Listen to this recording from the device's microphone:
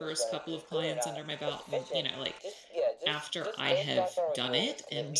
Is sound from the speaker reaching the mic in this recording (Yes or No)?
Yes